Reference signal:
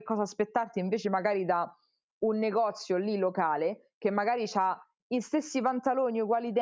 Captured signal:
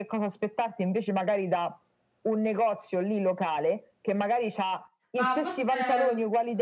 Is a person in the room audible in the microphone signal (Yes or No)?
Yes